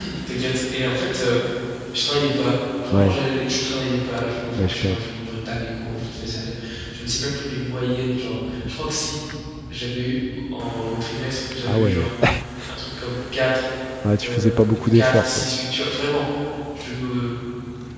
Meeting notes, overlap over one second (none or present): present